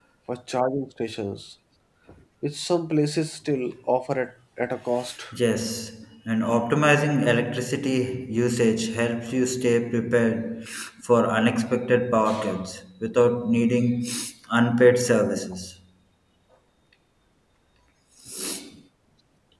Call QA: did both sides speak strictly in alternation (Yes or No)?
Yes